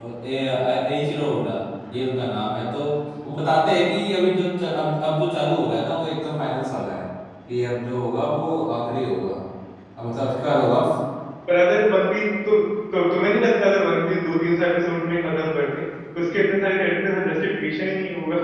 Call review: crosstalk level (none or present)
none